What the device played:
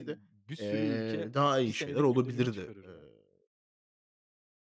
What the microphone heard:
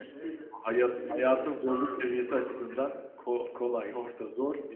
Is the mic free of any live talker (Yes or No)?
No